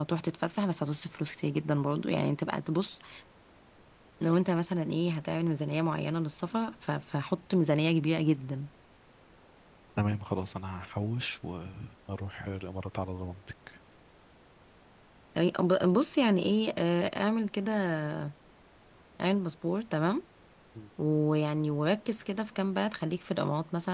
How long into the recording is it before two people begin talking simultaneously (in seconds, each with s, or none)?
none